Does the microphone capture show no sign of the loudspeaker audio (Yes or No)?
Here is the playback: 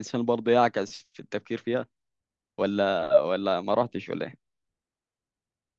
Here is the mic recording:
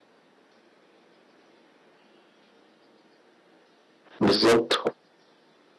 Yes